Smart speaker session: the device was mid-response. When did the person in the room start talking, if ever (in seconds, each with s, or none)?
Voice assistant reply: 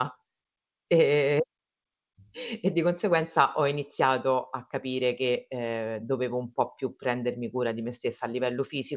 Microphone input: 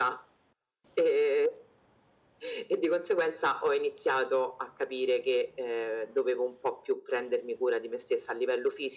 none